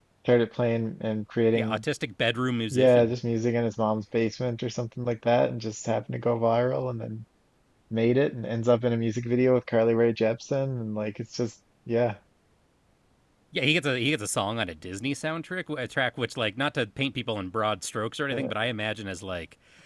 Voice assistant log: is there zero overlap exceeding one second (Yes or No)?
Yes